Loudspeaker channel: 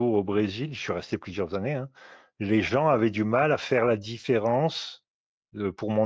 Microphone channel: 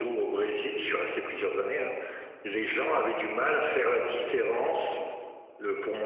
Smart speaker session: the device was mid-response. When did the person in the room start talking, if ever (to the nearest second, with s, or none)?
none